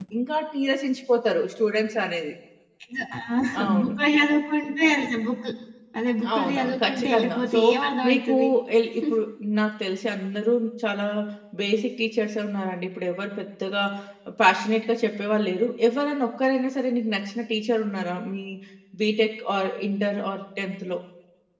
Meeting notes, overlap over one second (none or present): present